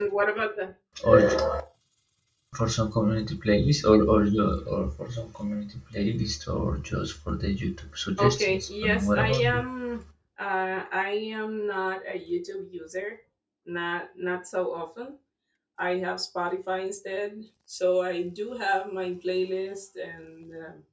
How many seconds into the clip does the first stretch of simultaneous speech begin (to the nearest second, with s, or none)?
8 s